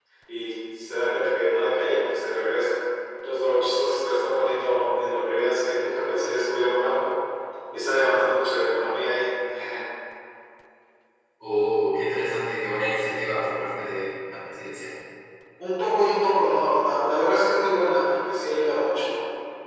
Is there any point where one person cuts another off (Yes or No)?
No